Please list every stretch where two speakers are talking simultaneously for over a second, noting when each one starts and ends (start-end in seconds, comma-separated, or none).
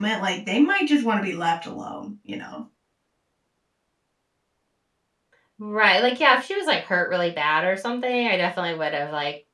none